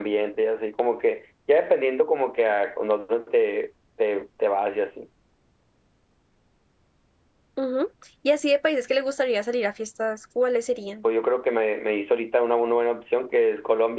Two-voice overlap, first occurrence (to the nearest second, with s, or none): none